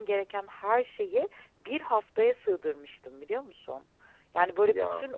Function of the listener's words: listening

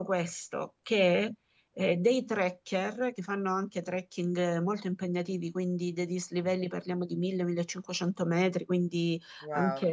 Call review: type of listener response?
listening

